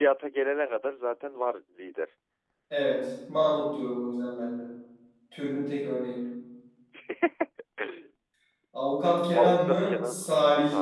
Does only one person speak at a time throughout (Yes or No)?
No